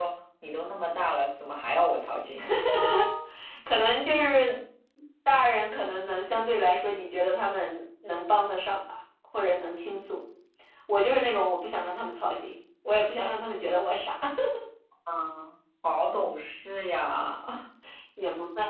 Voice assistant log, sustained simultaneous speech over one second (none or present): none